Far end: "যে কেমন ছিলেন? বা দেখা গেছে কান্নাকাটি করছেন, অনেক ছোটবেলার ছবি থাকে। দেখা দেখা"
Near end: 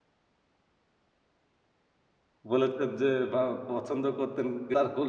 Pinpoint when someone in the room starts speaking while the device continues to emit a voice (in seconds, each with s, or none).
2.5 s